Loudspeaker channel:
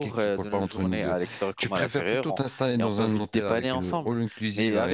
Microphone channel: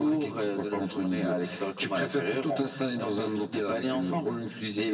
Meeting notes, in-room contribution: none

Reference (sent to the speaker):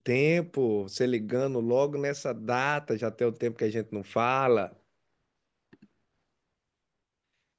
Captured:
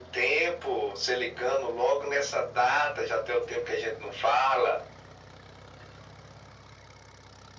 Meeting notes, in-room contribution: none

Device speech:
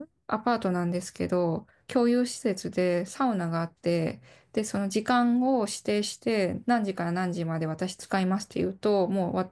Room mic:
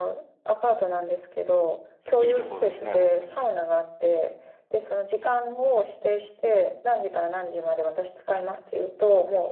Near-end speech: present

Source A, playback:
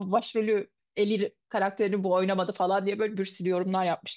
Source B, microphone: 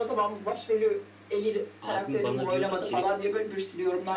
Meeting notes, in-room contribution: present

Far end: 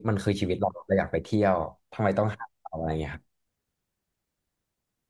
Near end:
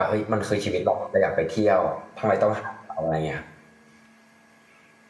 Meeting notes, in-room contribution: none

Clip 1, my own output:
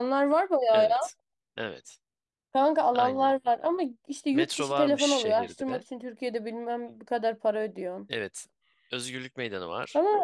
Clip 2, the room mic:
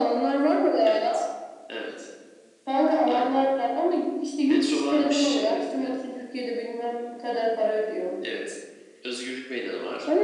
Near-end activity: none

